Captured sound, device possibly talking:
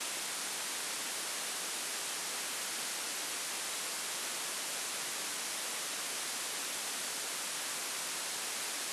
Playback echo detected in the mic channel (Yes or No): No